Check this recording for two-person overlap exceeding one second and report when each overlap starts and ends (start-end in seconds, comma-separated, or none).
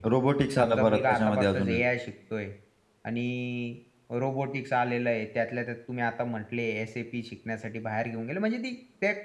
0.6-1.8